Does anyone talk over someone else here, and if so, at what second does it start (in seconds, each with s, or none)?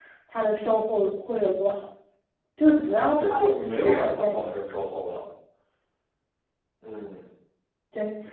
3.2 s